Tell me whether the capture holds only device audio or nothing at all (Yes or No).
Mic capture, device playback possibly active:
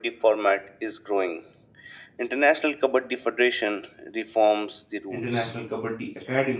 No